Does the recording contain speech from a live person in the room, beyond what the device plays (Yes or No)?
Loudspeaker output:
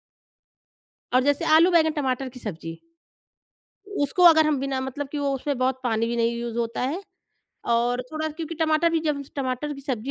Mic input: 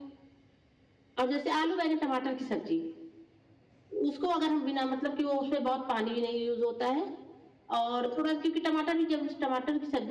No